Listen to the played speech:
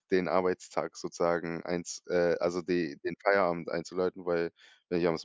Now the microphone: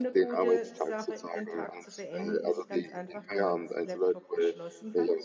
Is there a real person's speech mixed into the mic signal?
Yes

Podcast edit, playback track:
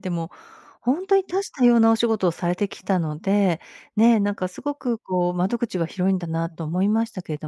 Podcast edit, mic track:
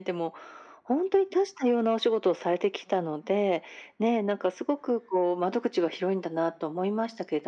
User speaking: No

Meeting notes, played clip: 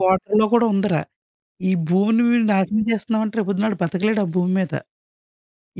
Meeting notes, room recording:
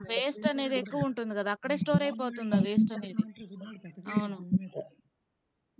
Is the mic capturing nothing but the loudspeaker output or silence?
No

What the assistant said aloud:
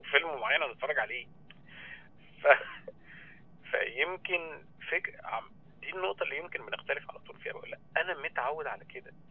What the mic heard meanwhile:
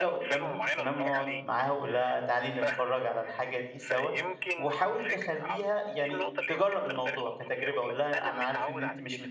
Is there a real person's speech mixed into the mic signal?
Yes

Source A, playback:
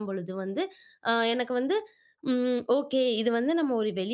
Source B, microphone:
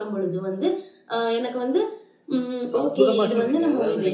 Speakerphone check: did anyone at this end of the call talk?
Yes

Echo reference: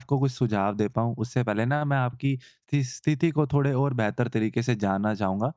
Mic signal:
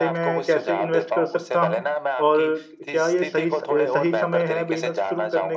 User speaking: Yes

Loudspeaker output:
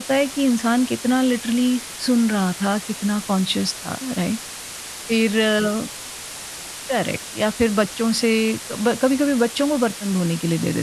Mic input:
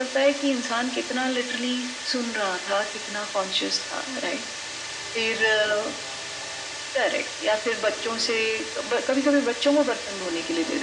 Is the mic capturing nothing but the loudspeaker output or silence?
Yes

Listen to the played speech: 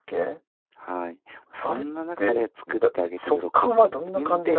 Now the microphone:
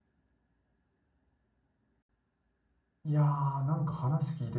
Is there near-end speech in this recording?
Yes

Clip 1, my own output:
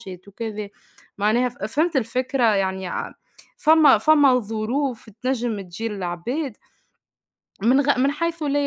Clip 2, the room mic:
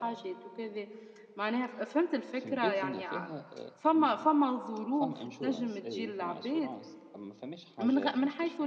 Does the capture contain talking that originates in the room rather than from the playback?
Yes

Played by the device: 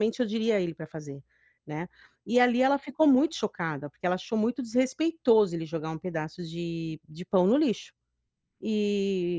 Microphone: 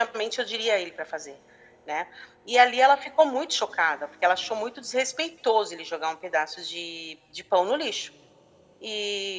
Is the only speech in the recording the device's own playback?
Yes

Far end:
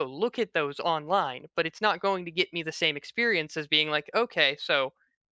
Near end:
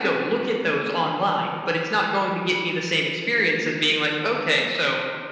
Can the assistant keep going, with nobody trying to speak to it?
Yes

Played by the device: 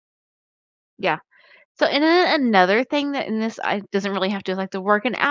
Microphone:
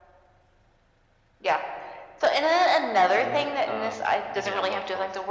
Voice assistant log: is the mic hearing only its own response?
No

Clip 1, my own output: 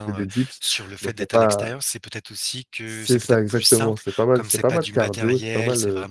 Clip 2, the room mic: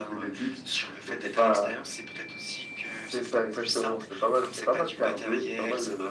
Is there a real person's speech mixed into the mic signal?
No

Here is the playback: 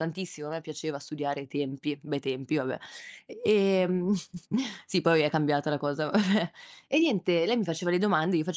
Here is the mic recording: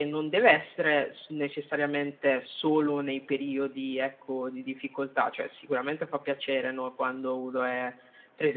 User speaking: Yes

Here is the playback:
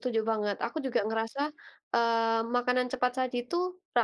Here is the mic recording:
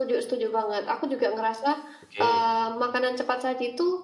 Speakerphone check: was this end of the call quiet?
No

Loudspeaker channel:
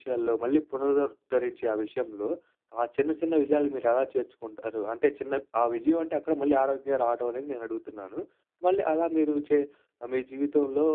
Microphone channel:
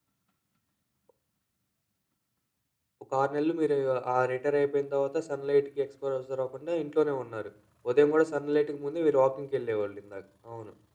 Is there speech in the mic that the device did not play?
Yes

